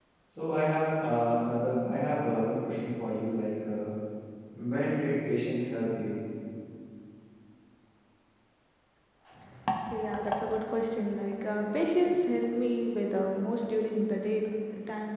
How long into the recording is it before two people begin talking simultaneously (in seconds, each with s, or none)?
none